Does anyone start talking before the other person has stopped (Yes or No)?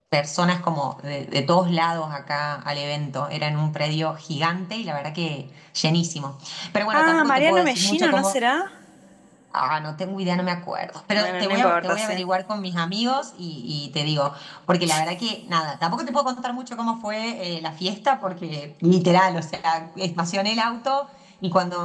Yes